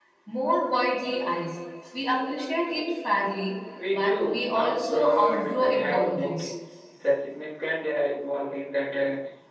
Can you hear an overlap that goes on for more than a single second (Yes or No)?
Yes